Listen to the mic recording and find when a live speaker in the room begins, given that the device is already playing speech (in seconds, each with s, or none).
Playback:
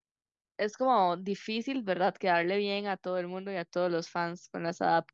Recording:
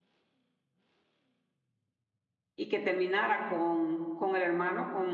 2.5 s